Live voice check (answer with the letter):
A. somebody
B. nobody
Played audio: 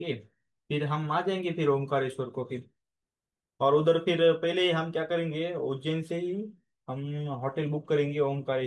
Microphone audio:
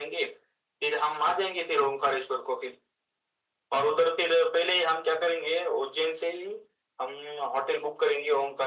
B